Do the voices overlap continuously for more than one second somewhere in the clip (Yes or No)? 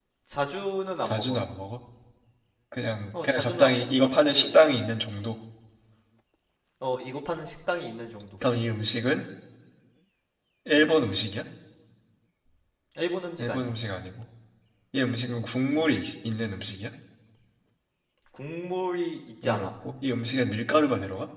Yes